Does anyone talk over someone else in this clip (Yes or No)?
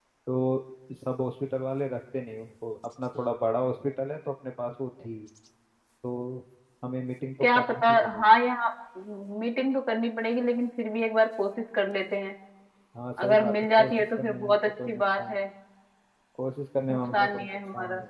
Yes